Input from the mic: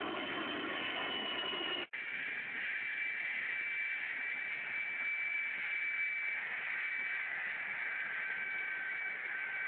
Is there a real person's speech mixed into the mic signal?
No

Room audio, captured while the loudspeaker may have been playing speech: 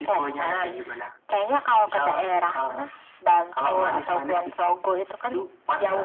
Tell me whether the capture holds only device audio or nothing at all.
Yes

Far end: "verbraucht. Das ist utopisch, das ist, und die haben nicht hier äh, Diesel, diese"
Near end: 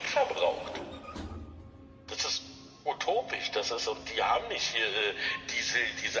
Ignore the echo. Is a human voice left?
No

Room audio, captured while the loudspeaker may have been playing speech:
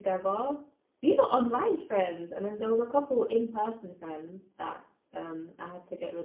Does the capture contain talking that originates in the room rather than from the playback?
Yes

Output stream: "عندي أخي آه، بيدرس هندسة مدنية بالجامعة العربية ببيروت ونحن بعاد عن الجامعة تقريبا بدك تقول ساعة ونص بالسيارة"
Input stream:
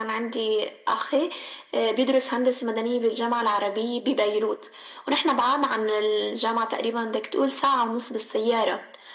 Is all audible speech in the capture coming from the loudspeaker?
Yes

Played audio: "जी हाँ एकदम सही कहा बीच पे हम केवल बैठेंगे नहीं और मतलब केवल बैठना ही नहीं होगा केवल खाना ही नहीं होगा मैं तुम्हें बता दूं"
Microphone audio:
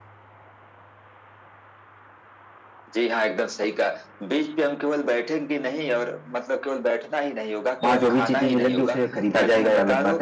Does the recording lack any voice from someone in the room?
No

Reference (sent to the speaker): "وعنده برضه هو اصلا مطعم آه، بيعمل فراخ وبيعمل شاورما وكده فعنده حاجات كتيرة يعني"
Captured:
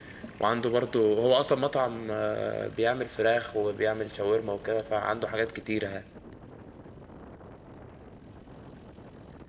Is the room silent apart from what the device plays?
Yes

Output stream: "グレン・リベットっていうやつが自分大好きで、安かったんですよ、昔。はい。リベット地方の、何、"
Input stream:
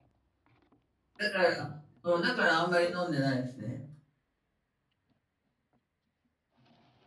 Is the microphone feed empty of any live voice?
No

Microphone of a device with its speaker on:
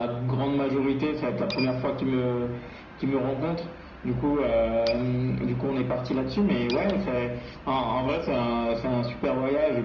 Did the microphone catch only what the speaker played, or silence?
Yes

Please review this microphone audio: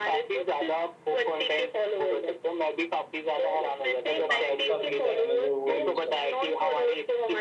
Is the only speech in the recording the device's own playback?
No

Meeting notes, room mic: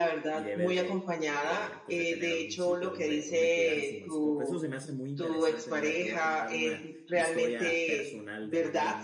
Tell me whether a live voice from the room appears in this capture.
Yes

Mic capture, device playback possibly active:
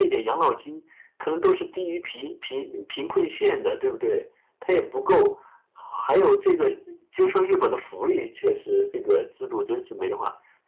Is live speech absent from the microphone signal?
Yes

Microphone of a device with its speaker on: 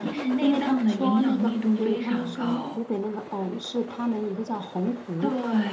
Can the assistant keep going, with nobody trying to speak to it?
No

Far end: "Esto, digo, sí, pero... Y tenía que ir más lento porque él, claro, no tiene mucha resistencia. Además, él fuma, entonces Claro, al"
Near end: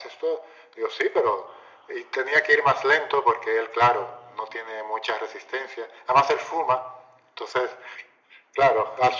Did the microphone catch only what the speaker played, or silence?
Yes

